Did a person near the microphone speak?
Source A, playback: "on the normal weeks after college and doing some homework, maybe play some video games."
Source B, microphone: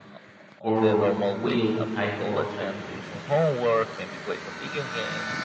Yes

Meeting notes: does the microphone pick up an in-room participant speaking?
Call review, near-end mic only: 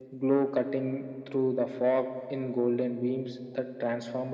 No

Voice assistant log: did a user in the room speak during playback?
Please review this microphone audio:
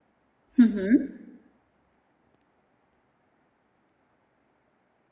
Yes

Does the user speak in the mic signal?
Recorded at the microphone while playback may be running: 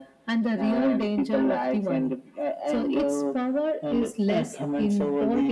No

